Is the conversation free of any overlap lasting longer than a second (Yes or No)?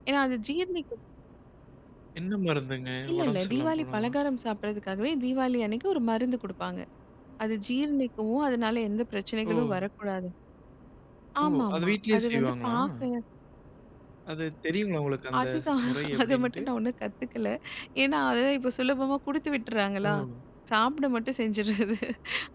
No